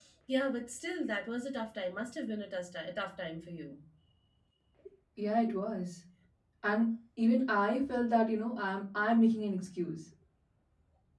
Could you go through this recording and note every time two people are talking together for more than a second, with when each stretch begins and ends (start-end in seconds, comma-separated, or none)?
none